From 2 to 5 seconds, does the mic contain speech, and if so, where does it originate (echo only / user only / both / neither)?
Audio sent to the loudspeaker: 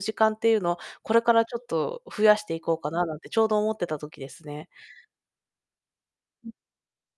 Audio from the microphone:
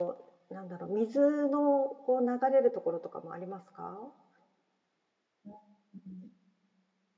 user only